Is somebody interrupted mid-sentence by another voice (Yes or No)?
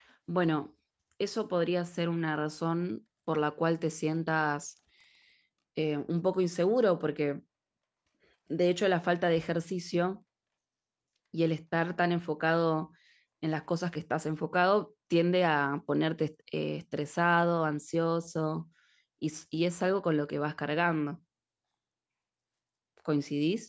No